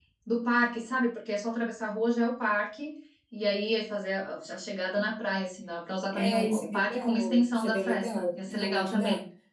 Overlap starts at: 6 s

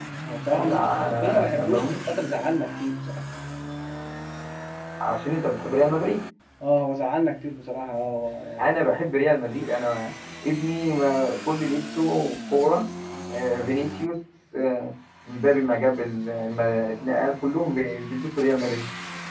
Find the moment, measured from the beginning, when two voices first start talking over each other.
1 s

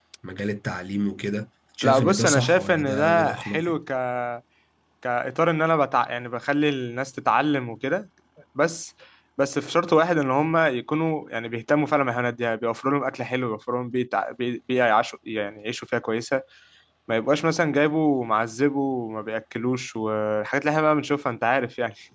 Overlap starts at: 2 s

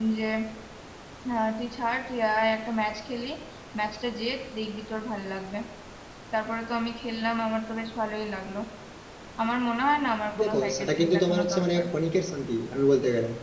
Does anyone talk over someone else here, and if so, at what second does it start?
10 s

